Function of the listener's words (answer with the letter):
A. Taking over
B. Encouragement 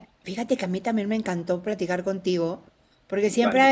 B